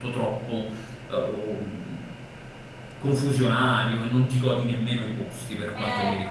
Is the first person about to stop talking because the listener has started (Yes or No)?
Yes